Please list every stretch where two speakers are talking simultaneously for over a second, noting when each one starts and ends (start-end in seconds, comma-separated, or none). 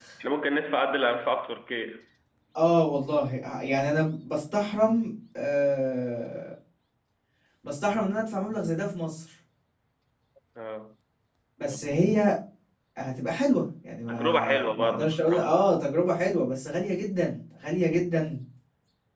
14.1-15.5